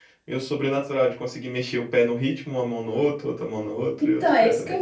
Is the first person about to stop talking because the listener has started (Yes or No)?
Yes